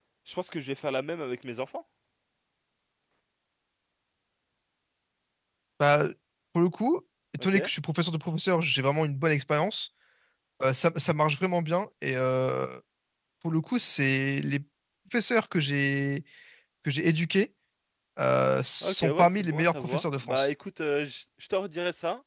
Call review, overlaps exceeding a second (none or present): present